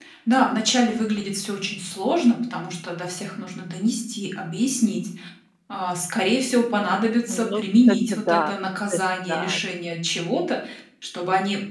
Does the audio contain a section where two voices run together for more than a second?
Yes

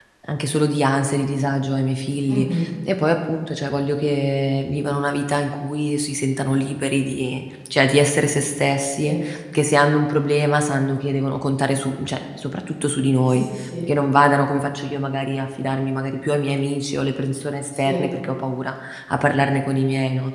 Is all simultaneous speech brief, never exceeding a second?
Yes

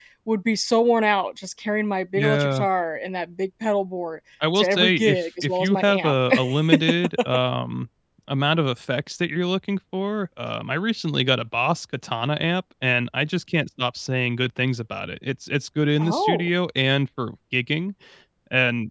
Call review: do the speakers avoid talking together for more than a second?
No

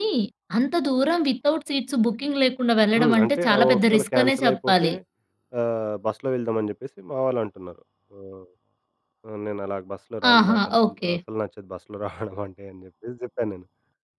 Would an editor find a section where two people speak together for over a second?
Yes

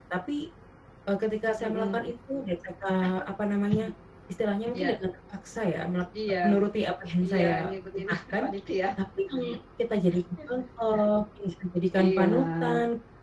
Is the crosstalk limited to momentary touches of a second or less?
No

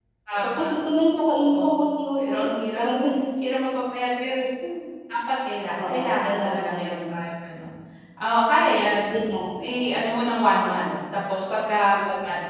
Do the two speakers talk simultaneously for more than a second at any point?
Yes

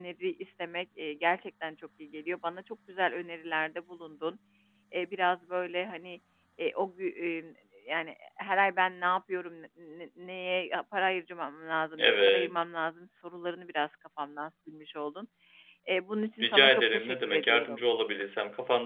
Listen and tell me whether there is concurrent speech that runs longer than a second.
Yes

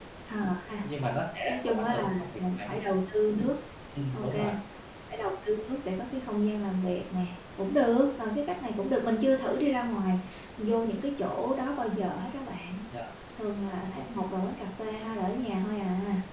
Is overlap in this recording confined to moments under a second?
No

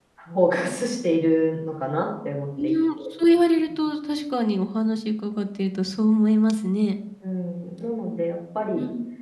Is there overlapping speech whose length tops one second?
No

